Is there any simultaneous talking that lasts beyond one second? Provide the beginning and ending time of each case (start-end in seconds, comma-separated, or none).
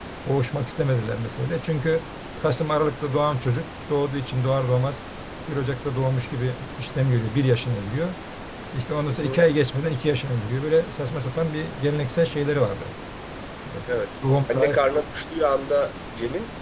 none